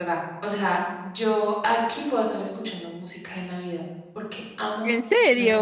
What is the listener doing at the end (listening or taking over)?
listening